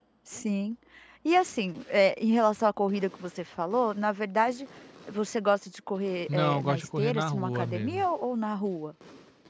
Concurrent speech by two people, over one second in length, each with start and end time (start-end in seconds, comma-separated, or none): 6.3-8.0